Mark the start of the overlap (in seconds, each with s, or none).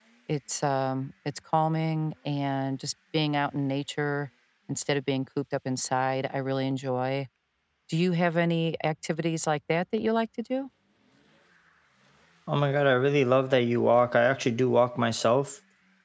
none